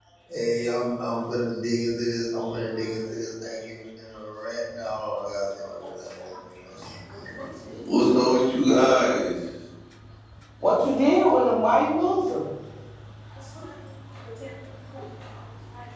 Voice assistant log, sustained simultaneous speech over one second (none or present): none